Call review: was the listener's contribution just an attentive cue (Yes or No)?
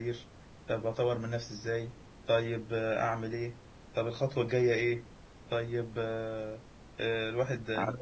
Yes